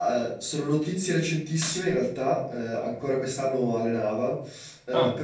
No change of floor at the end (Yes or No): Yes